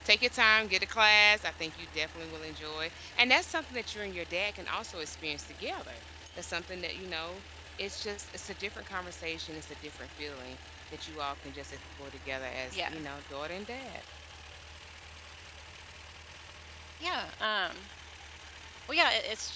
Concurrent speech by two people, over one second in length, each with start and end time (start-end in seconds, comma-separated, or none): none